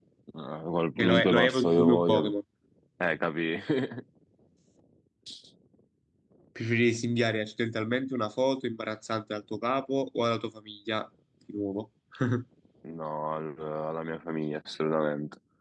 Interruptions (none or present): present